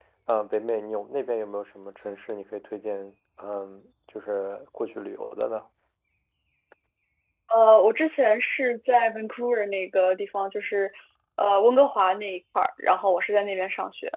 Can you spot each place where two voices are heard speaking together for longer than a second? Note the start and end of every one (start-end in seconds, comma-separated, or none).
none